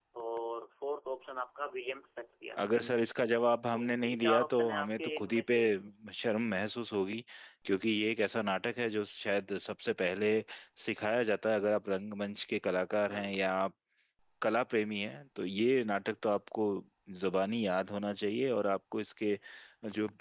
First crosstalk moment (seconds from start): 3.7 s

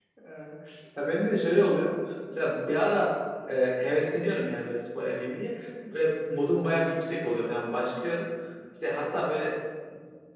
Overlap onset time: none

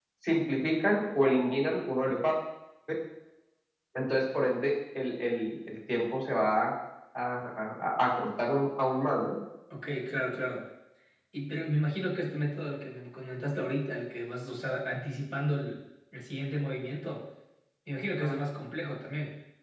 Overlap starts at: none

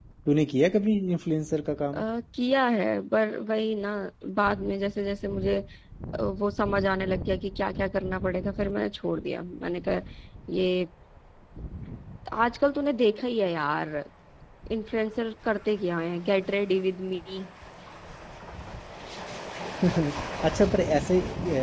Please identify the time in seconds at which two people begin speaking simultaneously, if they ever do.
none

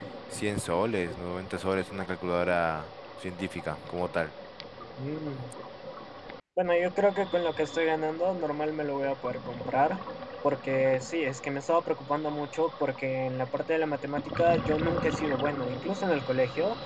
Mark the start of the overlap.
none

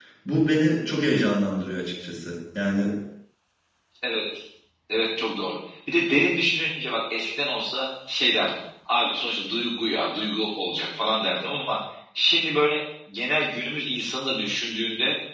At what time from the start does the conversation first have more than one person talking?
none

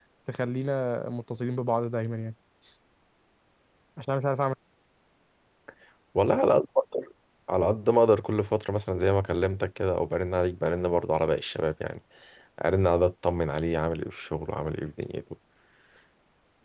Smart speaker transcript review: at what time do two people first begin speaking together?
none

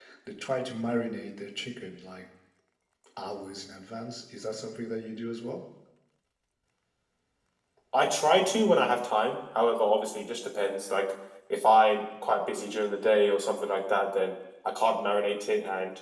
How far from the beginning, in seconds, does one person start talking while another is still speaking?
none

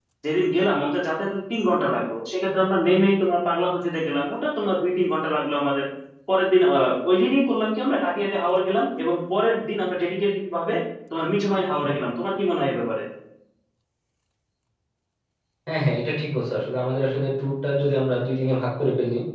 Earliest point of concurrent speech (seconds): none

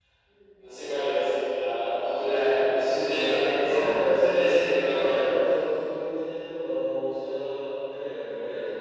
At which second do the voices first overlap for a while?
2.7 s

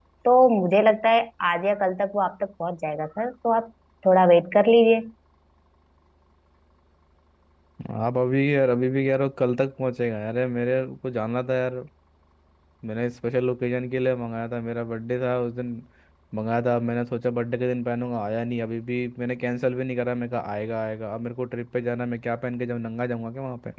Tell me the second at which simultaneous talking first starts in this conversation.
none

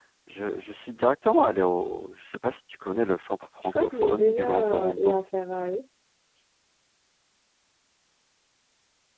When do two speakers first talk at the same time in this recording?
3.8 s

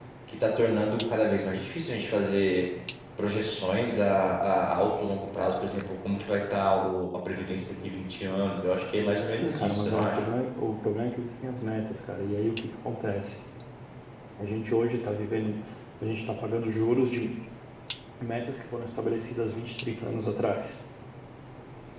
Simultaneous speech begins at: 9.0 s

